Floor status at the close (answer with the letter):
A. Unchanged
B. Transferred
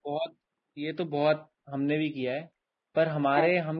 A